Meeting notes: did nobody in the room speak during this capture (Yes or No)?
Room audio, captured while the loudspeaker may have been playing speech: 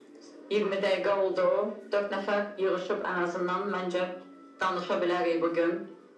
Yes